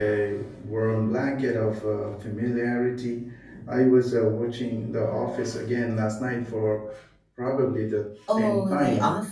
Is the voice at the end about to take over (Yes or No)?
Yes